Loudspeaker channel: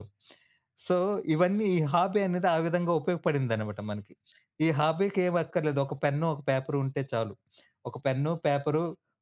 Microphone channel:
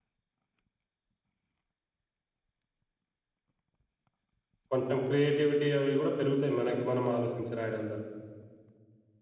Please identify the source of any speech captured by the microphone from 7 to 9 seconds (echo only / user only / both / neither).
user only